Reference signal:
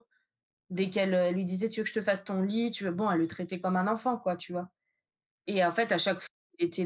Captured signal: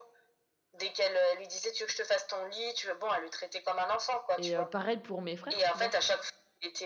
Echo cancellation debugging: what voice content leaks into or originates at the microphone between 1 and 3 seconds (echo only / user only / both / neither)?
echo only